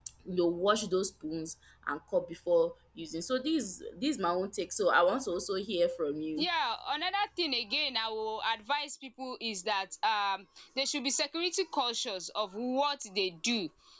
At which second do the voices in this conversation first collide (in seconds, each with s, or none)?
none